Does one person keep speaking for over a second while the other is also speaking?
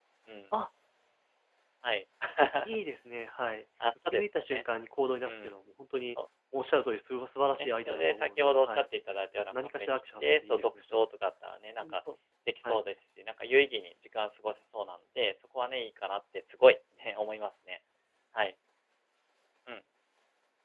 Yes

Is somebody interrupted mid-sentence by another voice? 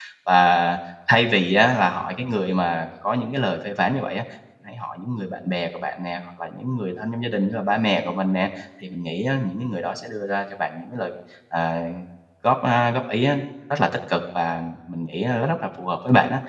No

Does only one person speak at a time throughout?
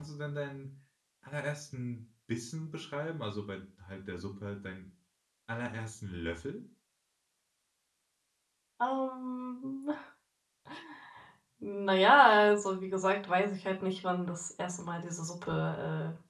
Yes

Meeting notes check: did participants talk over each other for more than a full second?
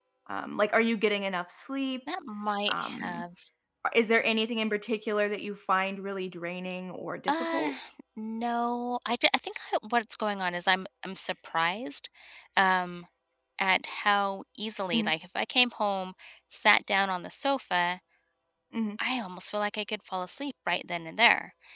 No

